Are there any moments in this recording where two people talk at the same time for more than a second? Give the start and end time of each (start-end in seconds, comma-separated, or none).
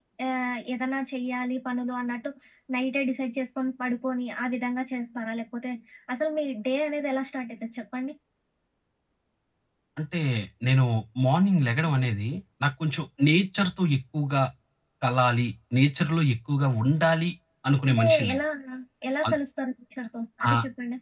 none